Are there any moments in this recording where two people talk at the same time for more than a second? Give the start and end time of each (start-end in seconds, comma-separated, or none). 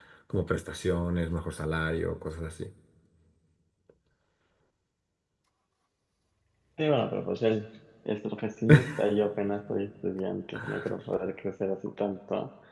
none